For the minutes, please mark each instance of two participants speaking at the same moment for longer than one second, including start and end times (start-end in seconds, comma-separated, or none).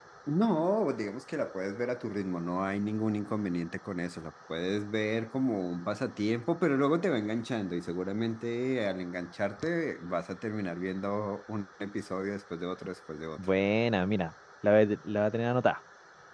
none